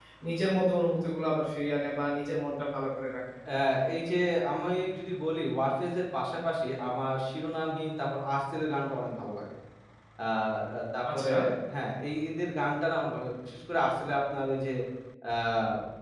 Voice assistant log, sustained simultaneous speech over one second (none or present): none